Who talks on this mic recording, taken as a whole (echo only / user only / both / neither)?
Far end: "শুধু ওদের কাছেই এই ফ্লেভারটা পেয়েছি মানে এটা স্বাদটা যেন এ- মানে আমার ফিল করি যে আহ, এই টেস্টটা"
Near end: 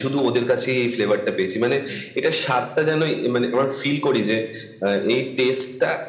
echo only